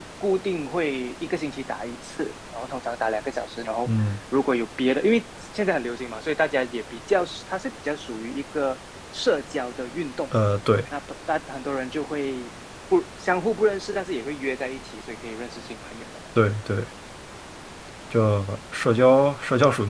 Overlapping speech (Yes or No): No